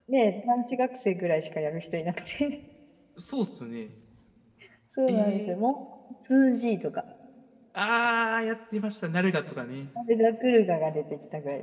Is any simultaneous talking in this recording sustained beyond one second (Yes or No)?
No